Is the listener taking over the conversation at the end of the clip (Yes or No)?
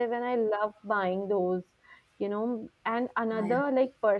No